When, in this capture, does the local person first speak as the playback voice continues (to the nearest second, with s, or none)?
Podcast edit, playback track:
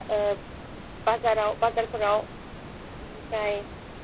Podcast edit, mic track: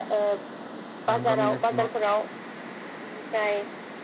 1 s